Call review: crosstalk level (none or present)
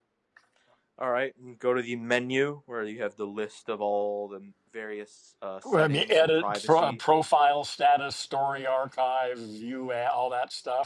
present